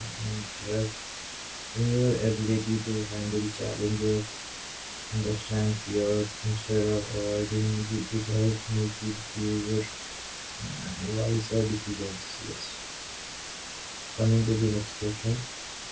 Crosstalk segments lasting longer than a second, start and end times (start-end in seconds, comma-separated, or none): none